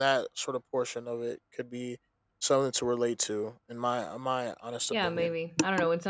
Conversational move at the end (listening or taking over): taking over